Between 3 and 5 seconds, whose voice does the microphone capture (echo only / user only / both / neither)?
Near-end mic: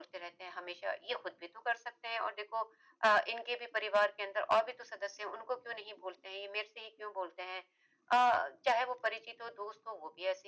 echo only